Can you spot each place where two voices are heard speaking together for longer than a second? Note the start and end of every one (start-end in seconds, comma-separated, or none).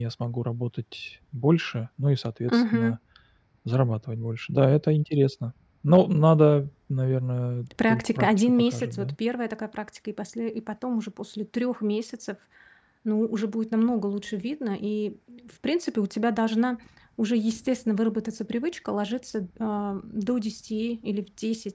7.9-9.1